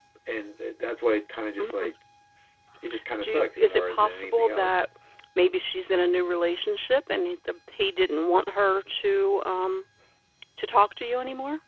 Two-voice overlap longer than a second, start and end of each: 3.2-4.7

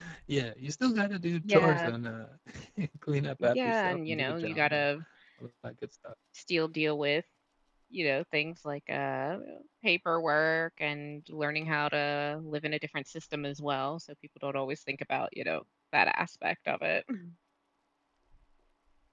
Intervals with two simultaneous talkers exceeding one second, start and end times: 3.4-4.8

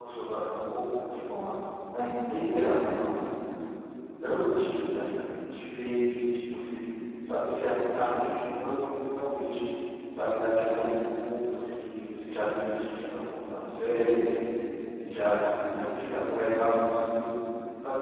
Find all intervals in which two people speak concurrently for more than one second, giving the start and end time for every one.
none

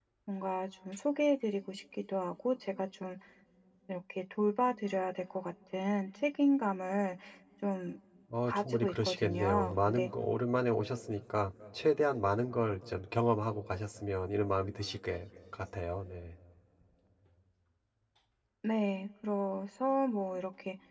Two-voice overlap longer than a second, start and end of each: 8.5-10.1

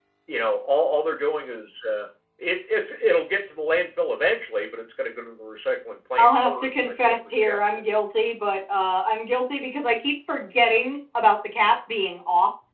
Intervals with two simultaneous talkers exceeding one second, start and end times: 6.2-7.6

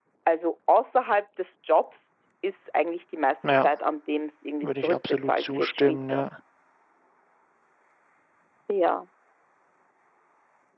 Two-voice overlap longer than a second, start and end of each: 4.6-6.2

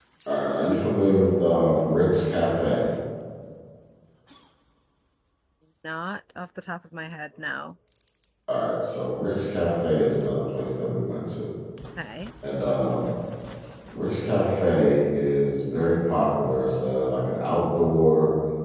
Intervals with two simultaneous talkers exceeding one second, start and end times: none

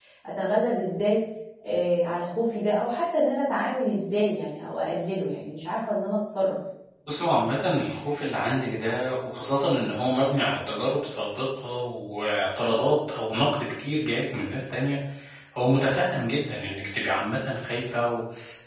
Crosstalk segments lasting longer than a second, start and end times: none

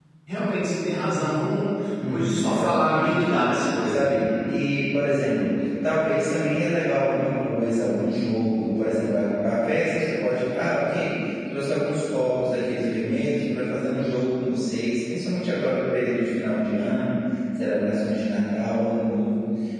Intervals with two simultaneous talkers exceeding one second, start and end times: 2.1-3.3

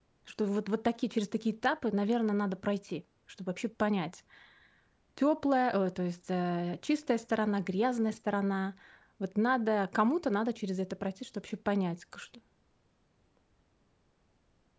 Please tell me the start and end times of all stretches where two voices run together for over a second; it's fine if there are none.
none

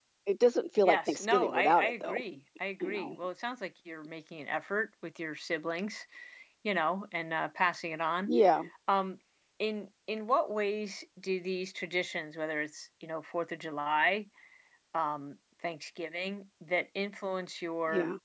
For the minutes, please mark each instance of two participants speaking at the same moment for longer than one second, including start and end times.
0.8-2.2

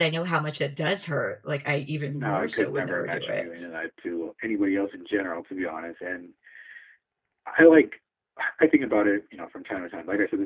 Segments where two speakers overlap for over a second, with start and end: 2.1-3.5

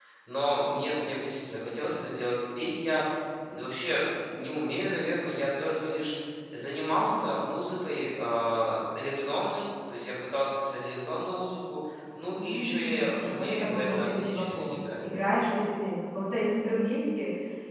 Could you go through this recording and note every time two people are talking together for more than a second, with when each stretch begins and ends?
12.4-15.0

